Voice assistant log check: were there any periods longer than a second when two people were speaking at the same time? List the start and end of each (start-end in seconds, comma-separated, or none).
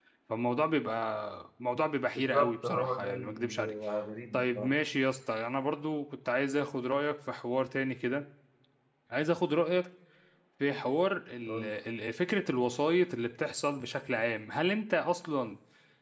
2.1-3.7